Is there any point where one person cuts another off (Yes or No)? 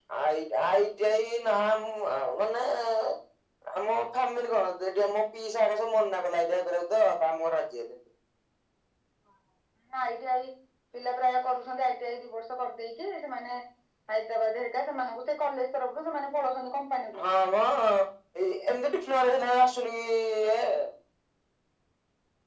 No